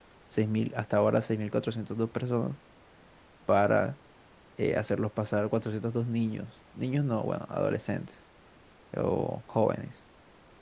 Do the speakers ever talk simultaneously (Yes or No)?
No